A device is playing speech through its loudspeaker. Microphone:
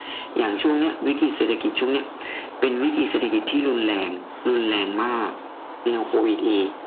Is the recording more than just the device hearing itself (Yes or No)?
No